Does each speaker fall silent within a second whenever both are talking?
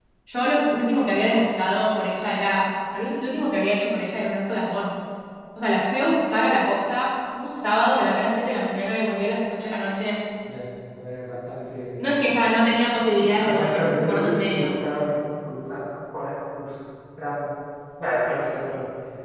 No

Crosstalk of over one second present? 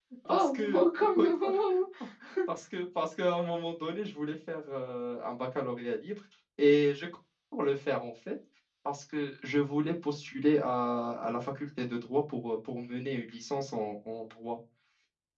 Yes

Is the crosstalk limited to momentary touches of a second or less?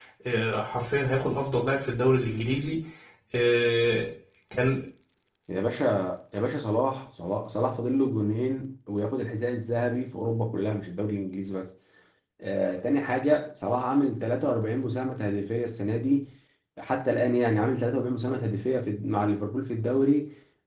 Yes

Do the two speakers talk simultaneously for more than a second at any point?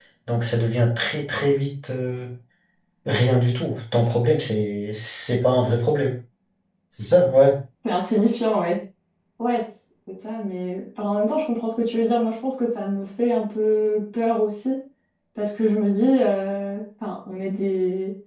No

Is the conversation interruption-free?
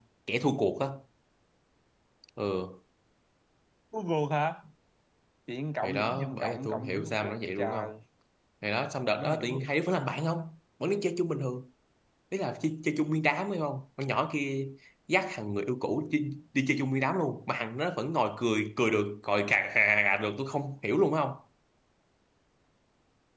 No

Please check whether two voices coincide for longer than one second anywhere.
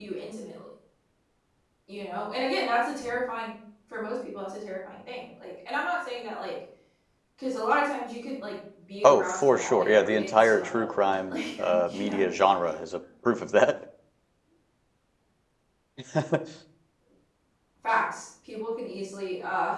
Yes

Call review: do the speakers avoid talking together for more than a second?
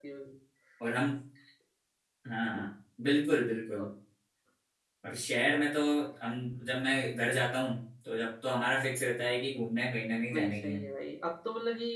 Yes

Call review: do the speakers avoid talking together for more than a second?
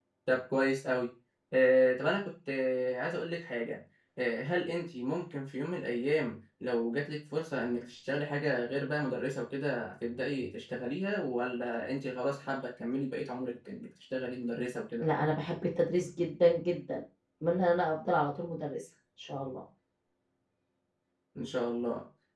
Yes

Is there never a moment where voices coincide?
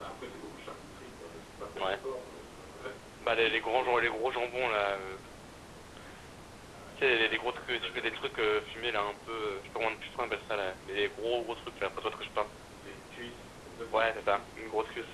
No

